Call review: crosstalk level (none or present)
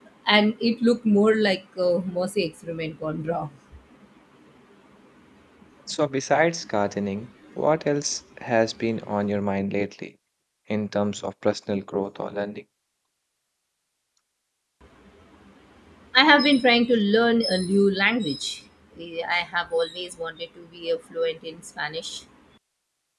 none